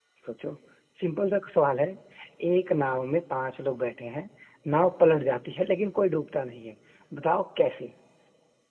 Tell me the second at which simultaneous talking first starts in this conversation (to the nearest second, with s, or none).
none